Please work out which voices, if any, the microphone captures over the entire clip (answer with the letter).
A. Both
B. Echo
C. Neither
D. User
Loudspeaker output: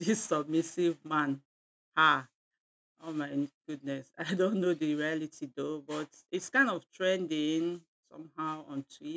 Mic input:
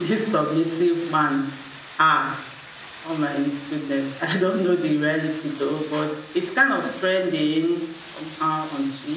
B